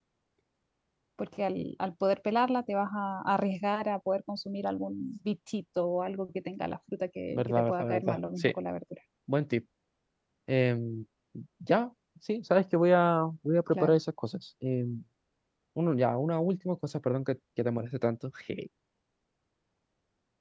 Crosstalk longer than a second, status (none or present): present